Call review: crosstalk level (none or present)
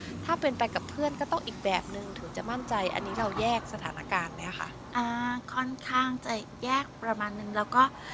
none